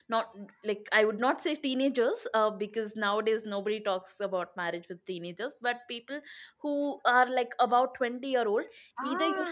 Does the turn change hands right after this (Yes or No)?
No